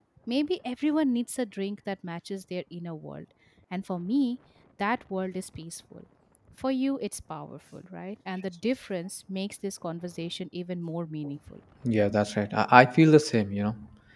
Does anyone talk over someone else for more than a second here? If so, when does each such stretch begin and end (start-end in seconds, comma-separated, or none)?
none